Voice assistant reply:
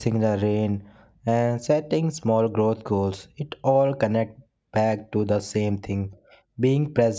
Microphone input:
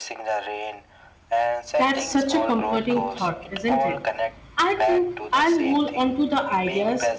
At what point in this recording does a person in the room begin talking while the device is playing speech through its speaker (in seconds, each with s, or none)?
1.8 s